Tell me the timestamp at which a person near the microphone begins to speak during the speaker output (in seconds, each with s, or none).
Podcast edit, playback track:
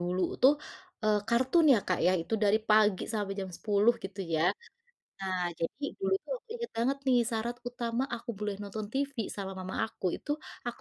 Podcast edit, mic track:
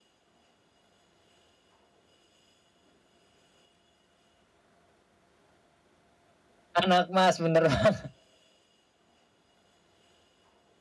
6.8 s